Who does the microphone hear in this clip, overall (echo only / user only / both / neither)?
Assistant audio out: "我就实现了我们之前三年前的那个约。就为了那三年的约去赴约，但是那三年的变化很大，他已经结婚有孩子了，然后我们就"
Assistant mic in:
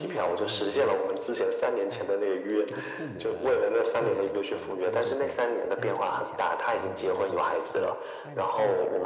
both